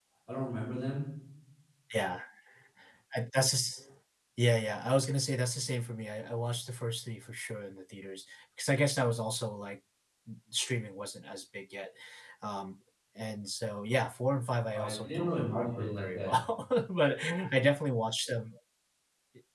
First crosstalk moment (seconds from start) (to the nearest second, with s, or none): 15 s